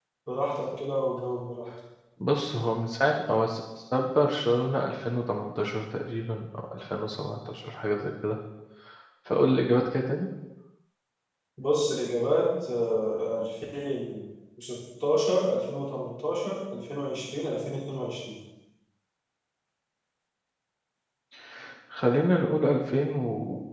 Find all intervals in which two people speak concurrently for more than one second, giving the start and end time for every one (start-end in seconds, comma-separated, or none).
none